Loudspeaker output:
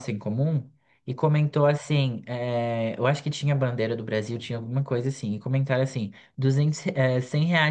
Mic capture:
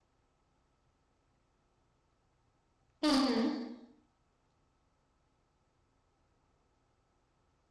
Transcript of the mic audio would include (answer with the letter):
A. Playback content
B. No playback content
B